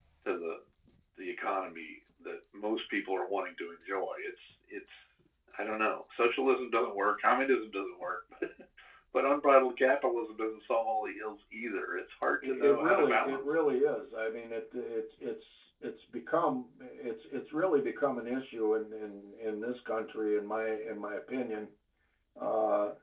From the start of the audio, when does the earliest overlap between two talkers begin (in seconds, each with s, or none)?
12.4 s